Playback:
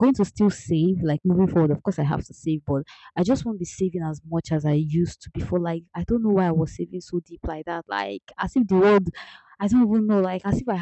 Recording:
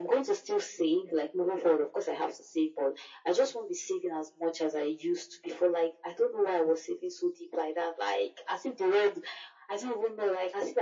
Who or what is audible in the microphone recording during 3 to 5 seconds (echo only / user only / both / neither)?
echo only